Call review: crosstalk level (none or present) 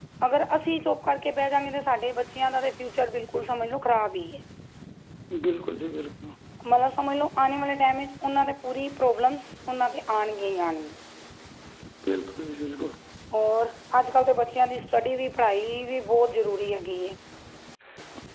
none